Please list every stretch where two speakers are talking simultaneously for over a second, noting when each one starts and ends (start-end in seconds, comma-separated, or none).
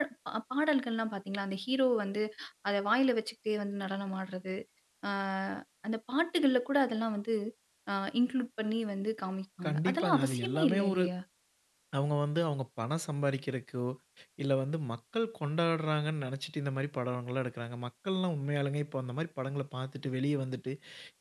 9.6-11.0